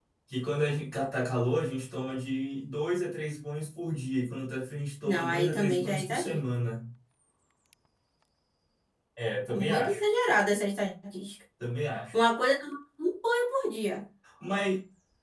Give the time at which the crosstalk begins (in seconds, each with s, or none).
5.0 s